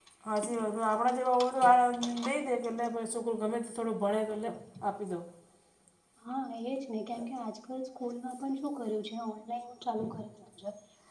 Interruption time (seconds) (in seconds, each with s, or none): none